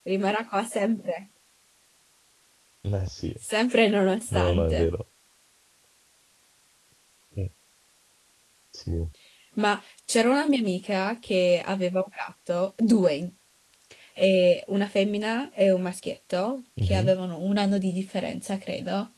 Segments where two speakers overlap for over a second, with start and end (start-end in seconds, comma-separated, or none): none